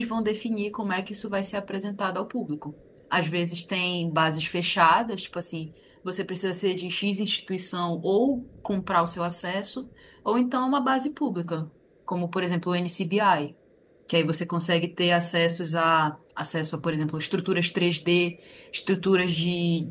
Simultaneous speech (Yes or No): No